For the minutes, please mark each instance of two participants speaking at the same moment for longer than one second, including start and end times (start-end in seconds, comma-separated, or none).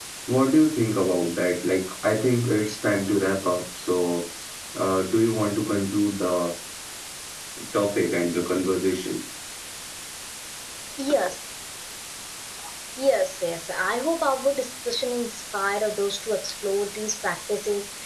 none